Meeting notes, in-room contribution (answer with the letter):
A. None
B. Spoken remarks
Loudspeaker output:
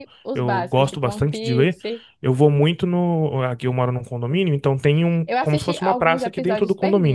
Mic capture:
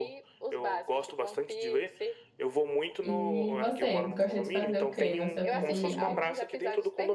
B